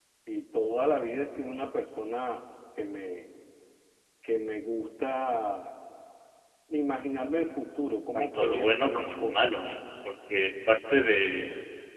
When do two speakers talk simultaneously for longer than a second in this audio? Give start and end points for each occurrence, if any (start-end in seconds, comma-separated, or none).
8.1-9.4